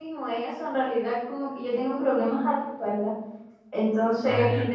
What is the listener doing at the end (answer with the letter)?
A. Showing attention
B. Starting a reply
A